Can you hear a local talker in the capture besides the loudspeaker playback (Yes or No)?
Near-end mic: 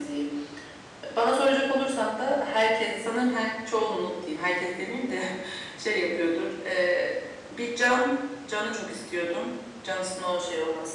No